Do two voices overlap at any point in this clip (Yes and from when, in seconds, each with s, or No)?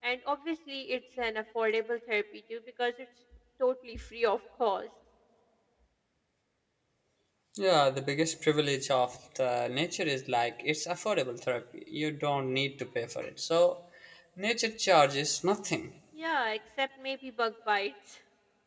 No